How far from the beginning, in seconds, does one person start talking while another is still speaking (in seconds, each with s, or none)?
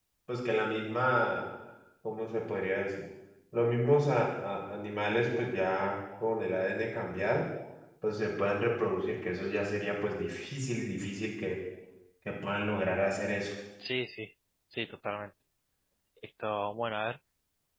none